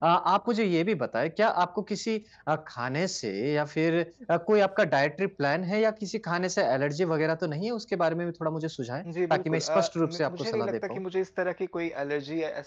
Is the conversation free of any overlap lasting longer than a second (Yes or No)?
No